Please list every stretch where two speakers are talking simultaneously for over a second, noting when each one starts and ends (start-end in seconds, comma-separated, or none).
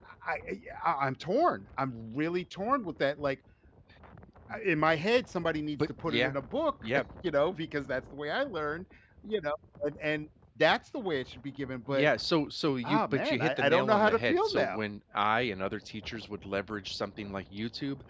12.8-14.8